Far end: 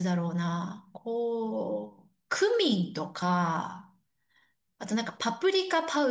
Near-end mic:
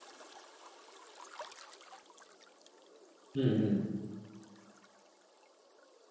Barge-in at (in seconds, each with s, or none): 3.3 s